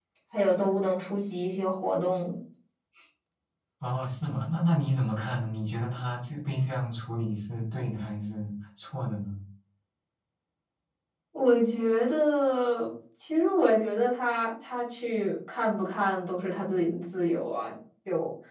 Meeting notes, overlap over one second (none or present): none